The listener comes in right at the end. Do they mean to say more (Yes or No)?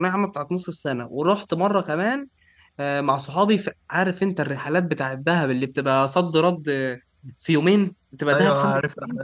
Yes